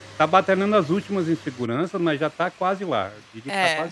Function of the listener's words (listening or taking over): taking over